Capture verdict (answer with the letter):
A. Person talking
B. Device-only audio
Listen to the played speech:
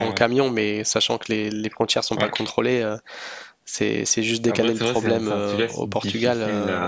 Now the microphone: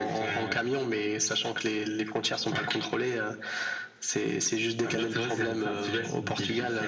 B